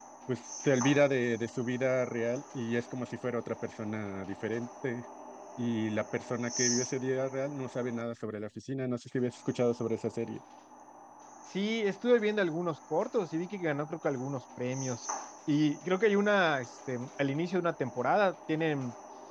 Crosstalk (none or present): none